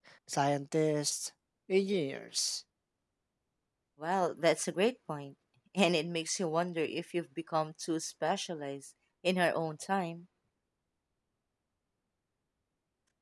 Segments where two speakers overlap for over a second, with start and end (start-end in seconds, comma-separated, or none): none